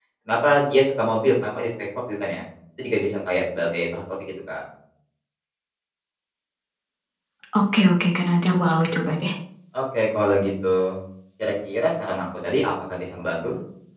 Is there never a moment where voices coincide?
Yes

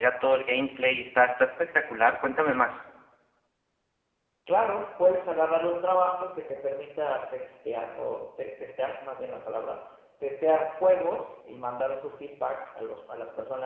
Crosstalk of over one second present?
No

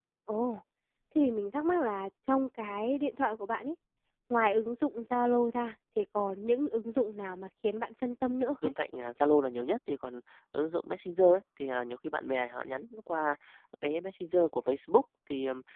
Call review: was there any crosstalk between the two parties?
No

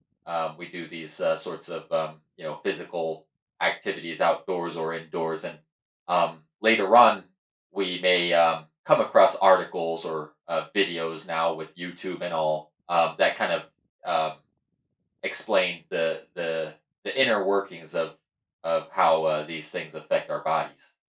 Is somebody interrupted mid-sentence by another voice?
No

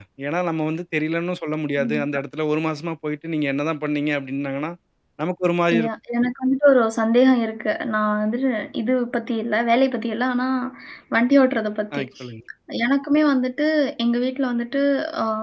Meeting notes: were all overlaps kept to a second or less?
Yes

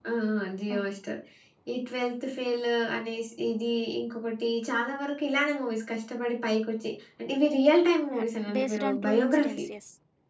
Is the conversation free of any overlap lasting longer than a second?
No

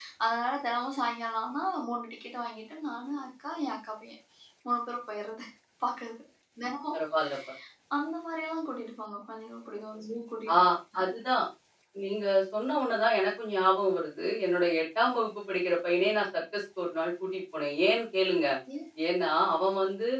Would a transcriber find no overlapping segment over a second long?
Yes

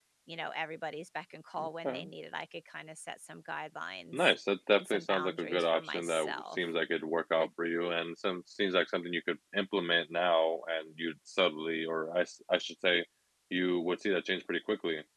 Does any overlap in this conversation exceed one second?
Yes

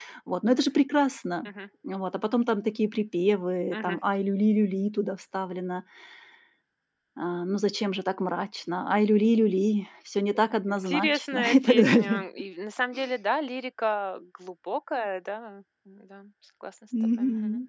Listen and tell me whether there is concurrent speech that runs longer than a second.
Yes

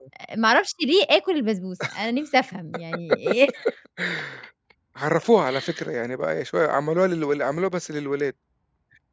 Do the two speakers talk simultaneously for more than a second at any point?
No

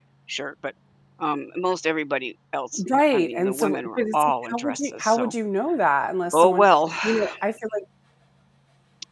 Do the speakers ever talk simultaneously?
Yes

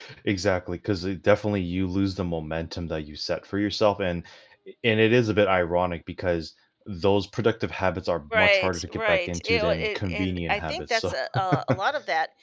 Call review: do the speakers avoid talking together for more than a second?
No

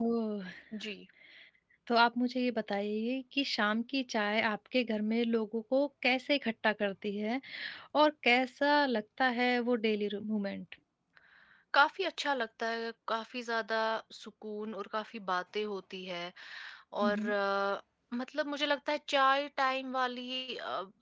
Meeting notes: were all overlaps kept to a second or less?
Yes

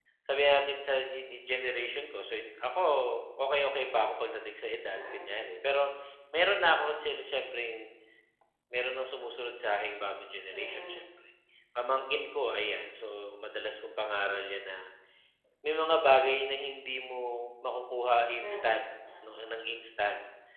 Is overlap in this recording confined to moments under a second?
Yes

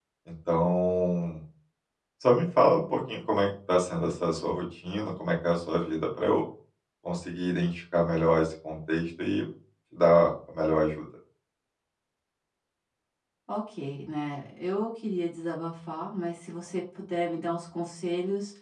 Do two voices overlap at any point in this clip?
No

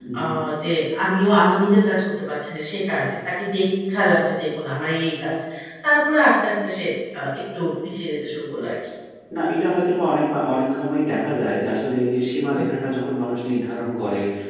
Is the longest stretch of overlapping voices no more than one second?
Yes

